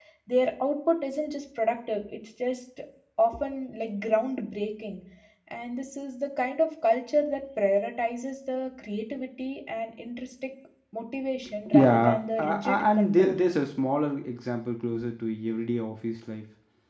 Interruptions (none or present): present